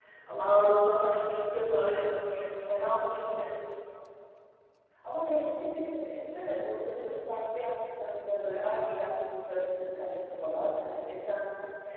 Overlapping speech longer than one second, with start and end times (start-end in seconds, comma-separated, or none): none